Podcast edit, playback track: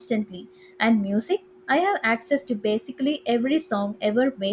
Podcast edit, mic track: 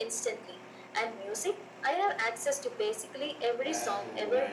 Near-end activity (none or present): present